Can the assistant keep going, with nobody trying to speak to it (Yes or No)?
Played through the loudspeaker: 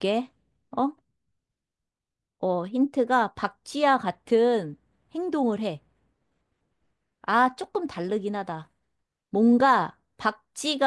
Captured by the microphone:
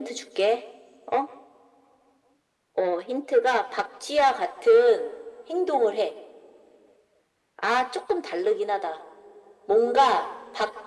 Yes